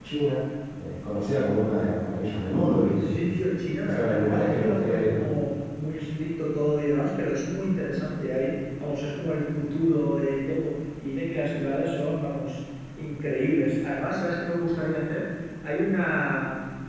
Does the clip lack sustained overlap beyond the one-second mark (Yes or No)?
No